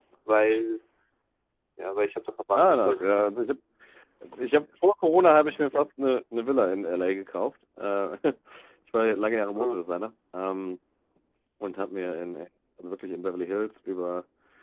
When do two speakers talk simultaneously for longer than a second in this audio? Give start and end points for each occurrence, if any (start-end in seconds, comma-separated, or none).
none